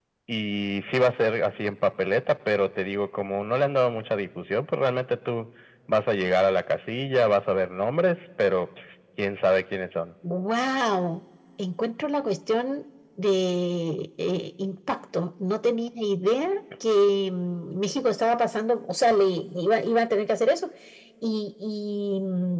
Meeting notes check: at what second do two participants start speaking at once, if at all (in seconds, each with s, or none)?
none